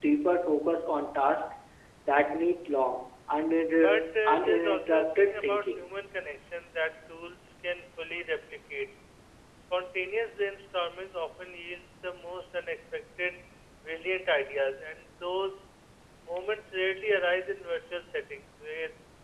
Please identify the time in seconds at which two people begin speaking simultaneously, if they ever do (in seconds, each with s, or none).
3.8 s